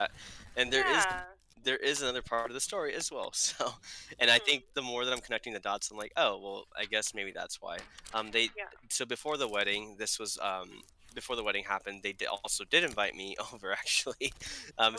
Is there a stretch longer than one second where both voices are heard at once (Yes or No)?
No